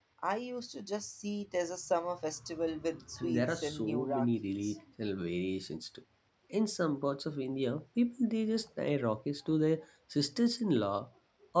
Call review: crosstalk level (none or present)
present